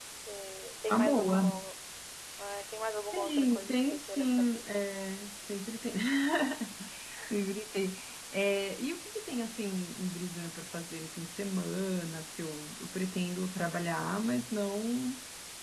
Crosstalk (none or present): present